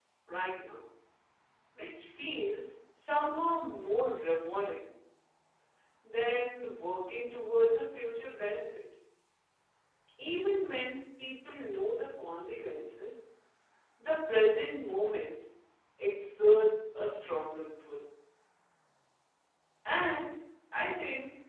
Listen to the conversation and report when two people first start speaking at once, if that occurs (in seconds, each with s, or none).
none